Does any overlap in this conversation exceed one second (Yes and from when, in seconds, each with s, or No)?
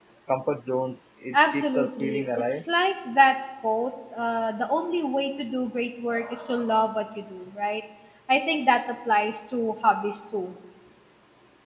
Yes, from 1.3 s